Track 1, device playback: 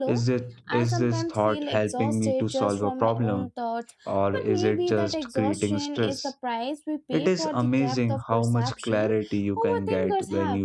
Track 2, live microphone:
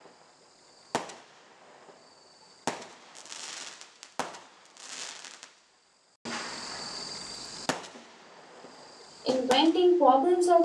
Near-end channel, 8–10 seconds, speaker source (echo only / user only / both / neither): user only